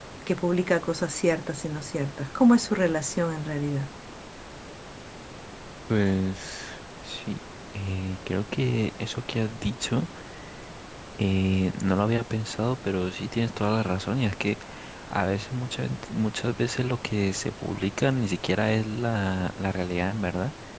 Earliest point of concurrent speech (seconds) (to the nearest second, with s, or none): none